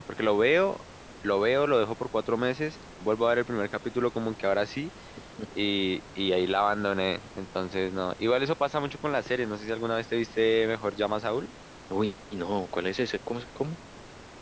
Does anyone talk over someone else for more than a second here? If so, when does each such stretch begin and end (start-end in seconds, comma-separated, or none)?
none